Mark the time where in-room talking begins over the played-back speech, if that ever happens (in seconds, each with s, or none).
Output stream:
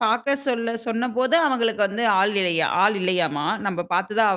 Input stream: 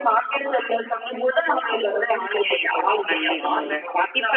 3.1 s